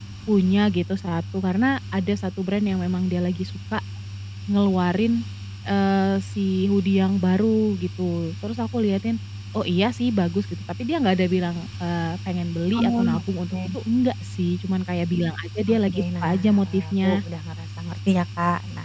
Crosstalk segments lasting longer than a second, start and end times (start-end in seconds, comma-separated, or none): 15.7-17.2